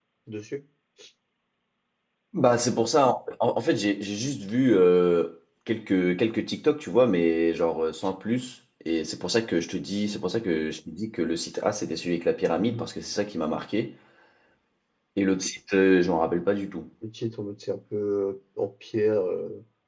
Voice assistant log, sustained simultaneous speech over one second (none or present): none